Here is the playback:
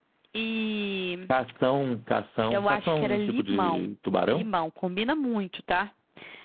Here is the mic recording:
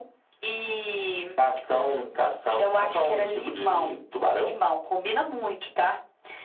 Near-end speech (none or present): none